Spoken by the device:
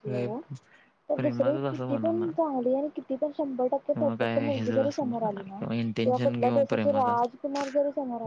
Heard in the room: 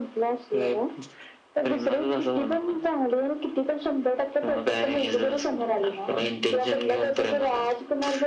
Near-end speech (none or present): none